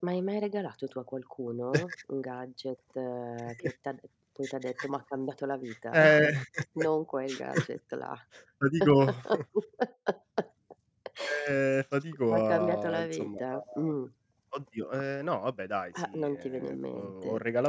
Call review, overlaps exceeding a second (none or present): present